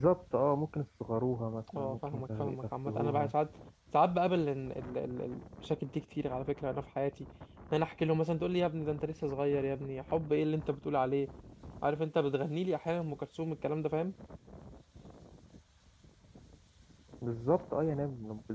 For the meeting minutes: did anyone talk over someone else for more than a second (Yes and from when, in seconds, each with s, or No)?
Yes, from 1.7 s